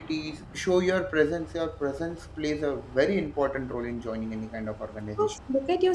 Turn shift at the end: Yes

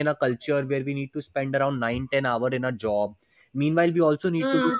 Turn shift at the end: No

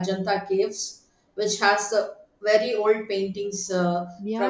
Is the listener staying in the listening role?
No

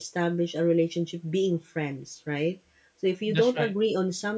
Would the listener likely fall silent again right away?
Yes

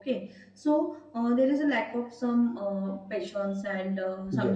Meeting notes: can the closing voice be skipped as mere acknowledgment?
Yes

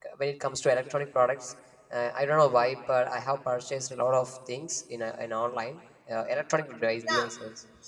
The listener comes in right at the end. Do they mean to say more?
Yes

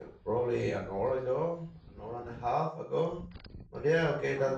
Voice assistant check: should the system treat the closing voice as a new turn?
No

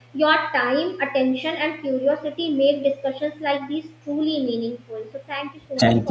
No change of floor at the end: No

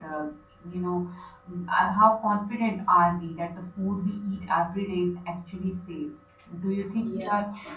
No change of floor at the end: Yes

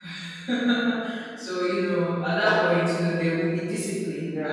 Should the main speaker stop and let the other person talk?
Yes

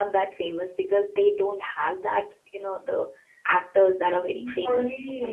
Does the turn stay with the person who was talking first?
No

